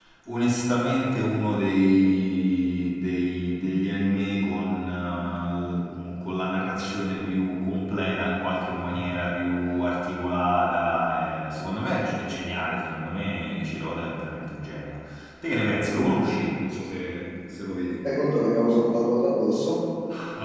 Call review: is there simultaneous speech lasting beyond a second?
No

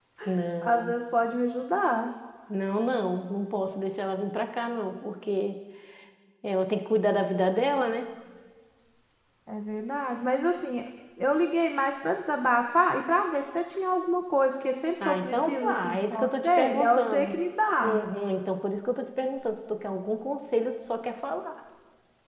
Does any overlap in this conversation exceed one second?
Yes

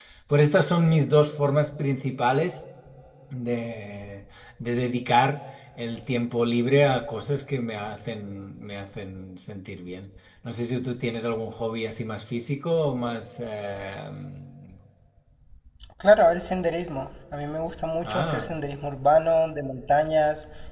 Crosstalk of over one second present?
No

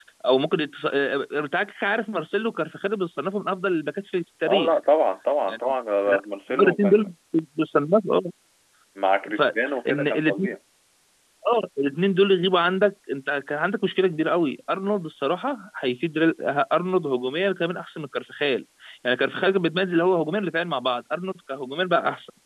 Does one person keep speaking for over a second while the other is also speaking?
Yes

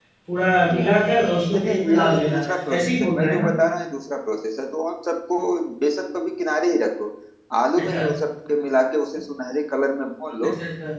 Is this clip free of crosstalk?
No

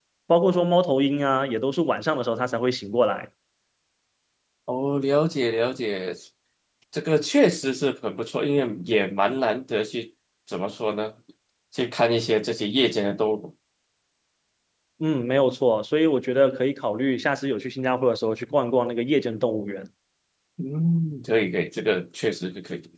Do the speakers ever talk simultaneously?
No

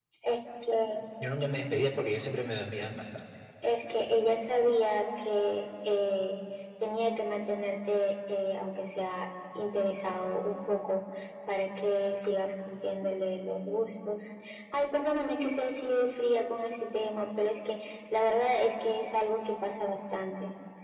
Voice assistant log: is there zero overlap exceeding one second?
Yes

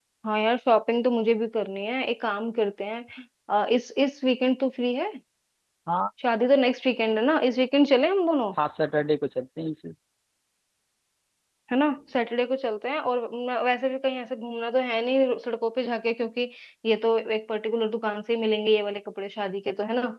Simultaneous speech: No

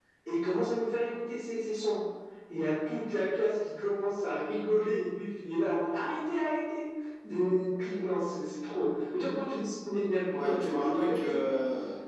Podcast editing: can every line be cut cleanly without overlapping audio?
No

